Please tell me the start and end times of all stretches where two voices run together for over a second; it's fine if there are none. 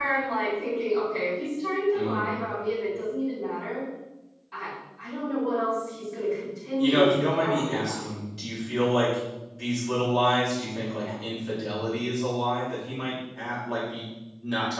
6.8-8.1

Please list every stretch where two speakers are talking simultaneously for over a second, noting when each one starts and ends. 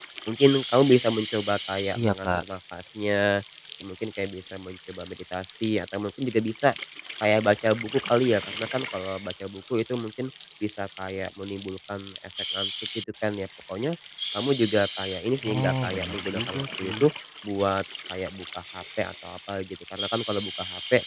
15.5-16.9

